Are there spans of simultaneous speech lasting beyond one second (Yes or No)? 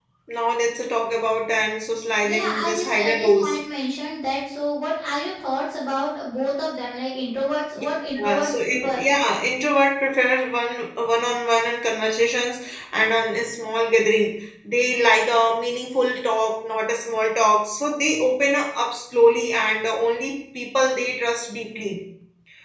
Yes